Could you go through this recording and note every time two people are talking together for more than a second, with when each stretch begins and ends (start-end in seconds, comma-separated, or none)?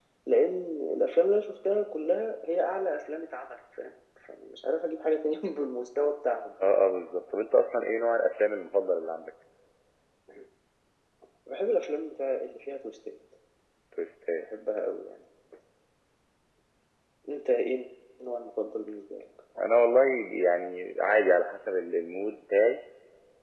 none